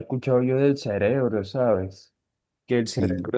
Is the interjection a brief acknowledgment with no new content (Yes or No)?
Yes